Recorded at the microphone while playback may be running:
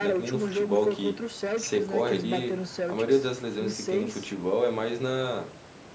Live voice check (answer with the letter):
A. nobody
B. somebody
B